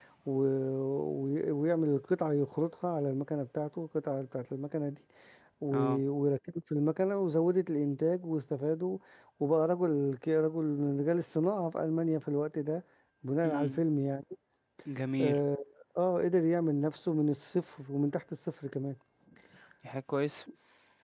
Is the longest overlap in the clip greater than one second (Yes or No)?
No